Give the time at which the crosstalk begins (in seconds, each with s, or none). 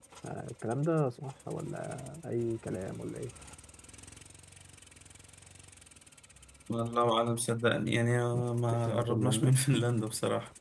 8.3 s